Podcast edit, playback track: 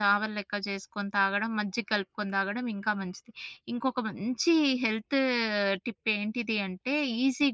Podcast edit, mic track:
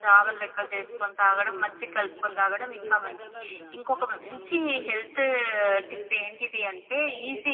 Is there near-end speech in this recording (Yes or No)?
Yes